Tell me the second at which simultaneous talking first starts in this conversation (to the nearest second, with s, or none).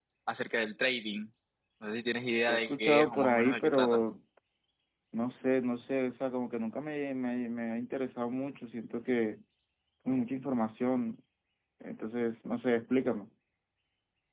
2 s